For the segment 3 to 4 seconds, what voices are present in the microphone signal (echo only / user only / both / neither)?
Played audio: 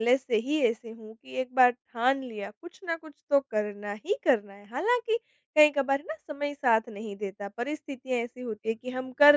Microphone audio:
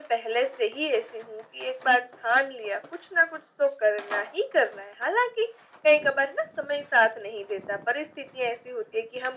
echo only